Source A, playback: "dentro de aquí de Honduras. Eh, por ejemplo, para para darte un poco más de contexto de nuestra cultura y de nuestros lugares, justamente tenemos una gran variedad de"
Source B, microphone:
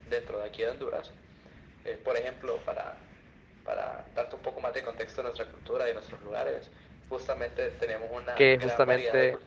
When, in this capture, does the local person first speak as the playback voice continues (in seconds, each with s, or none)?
8.3 s